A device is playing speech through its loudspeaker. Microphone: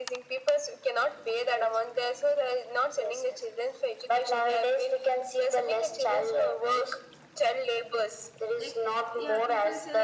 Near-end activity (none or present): present